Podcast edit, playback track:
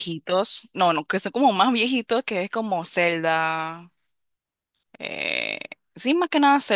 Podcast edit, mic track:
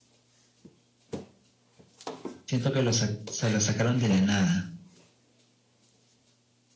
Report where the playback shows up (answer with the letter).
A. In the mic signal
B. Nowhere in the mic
B